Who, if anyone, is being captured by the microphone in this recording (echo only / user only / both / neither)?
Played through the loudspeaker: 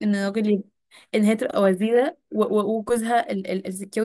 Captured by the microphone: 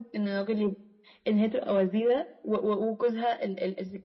echo only